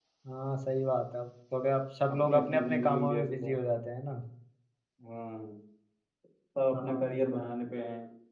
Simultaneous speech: Yes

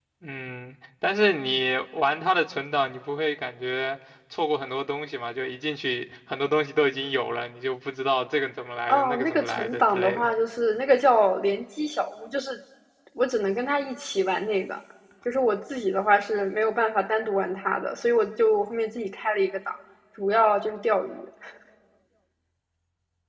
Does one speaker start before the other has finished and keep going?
Yes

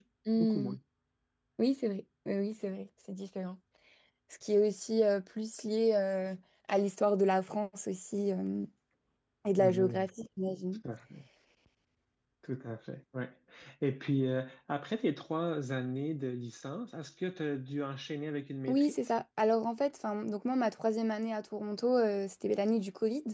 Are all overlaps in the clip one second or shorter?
Yes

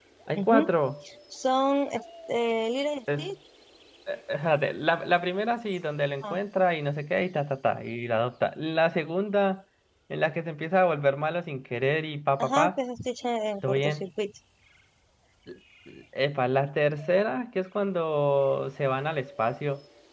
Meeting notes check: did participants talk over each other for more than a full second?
No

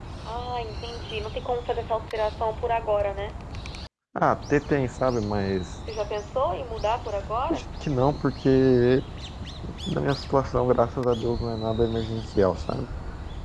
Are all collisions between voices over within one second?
Yes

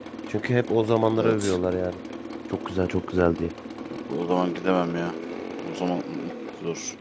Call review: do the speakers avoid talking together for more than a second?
Yes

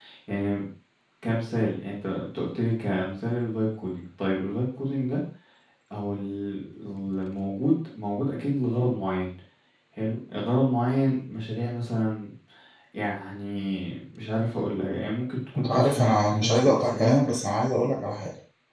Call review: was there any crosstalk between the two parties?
Yes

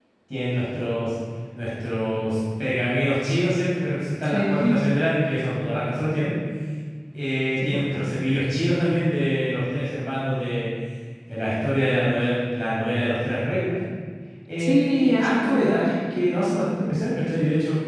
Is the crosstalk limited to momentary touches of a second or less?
No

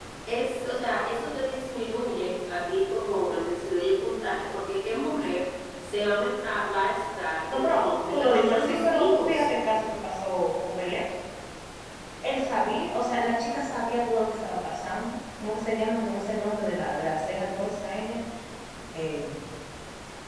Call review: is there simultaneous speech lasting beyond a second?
Yes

